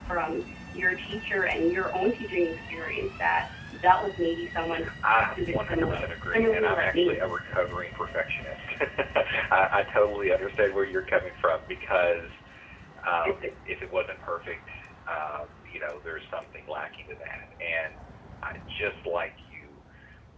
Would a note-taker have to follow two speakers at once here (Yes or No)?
Yes